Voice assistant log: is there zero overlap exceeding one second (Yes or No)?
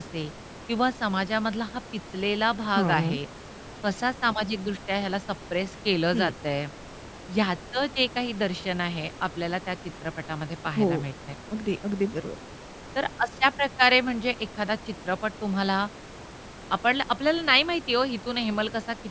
Yes